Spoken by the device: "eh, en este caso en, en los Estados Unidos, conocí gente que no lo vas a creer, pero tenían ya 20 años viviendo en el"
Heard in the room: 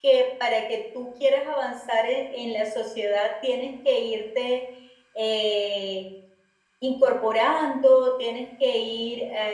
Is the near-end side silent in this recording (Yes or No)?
No